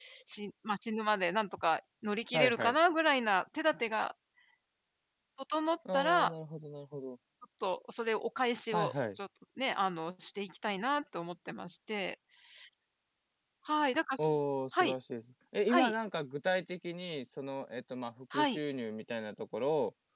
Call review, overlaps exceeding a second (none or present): none